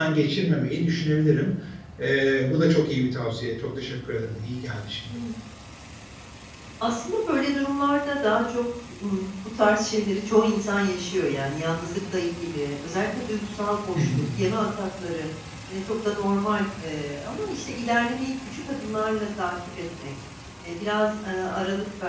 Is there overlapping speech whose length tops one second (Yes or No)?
No